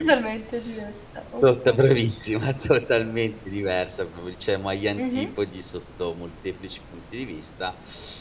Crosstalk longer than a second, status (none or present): none